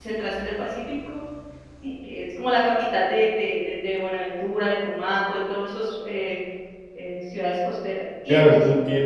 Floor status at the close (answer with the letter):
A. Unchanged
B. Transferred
B